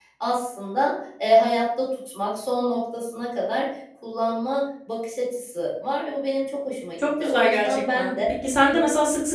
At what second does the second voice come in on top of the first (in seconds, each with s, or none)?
7.0 s